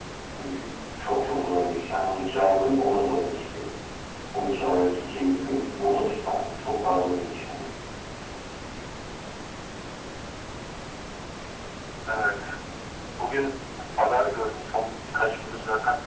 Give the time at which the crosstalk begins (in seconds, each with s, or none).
none